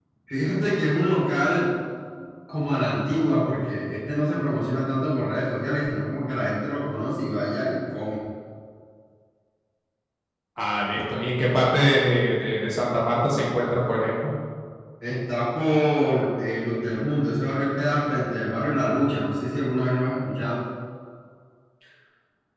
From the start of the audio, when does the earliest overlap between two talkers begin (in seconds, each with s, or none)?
none